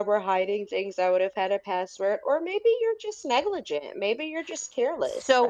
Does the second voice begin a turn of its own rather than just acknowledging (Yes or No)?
Yes